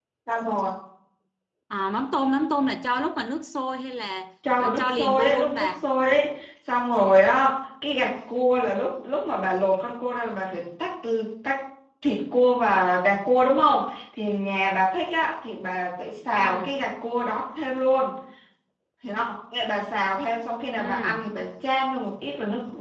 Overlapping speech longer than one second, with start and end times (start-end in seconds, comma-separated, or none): 4.6-5.8